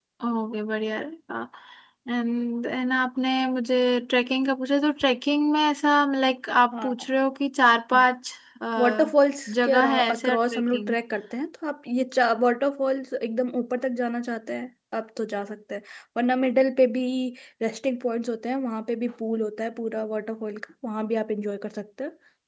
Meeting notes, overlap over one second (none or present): present